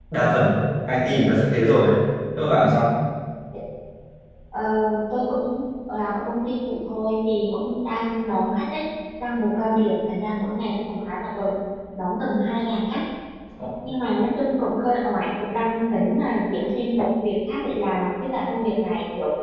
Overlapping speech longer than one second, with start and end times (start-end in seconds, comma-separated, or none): none